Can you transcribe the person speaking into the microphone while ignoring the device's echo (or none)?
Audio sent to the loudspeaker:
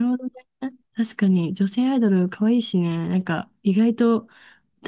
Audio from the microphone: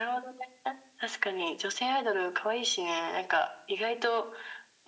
none